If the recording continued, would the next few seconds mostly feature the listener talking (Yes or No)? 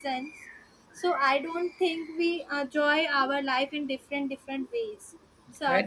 Yes